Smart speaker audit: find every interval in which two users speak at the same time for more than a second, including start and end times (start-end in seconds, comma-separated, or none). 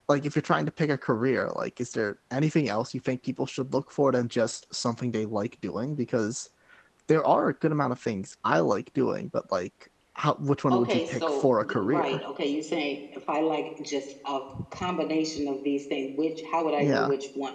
10.7-12.2